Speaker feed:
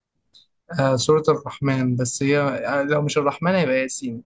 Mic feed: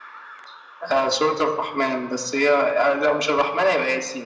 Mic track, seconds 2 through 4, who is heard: echo only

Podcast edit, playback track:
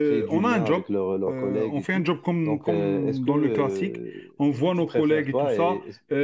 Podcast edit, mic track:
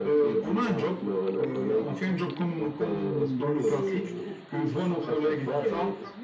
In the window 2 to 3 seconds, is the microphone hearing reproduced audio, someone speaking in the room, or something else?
both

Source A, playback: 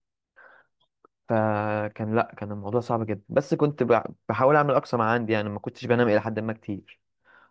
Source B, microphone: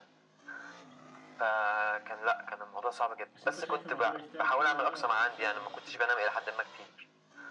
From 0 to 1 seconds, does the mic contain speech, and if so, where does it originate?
neither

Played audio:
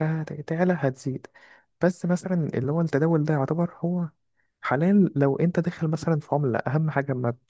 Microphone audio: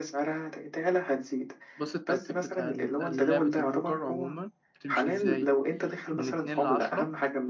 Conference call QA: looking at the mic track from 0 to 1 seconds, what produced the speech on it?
echo only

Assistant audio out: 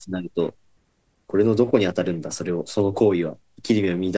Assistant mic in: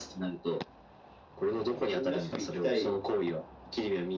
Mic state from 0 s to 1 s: echo only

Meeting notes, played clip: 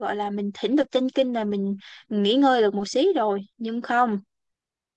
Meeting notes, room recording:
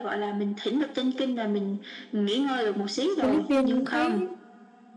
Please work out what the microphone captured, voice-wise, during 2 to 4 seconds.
both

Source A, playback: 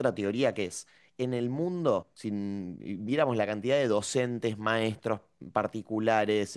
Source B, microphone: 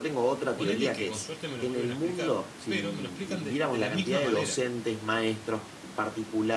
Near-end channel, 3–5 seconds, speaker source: both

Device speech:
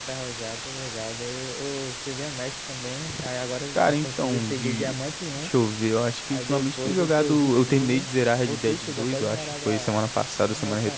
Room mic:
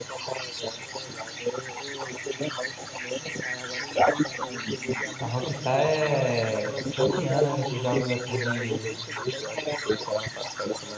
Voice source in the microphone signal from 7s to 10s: both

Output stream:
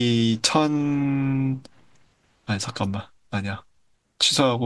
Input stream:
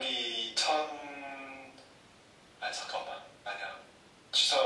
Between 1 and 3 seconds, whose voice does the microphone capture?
echo only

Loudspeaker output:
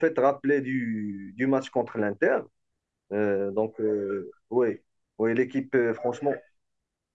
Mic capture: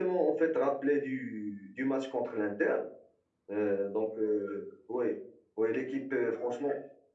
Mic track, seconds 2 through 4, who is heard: echo only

